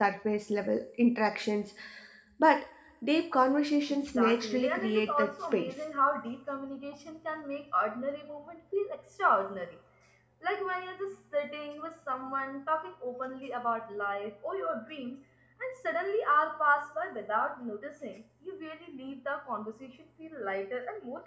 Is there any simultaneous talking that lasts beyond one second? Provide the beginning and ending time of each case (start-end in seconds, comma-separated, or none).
3.9-5.7